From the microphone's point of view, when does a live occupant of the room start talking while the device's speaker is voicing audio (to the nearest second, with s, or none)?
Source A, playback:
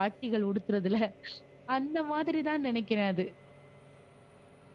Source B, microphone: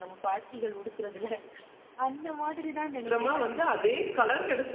3 s